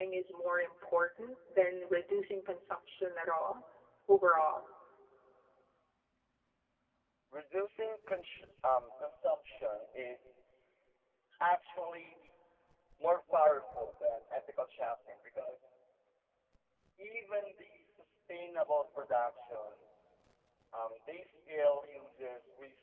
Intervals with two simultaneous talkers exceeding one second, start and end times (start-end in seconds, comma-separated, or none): none